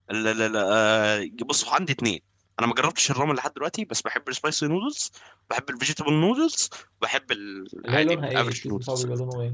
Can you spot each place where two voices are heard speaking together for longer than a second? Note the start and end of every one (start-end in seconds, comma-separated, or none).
7.8-9.1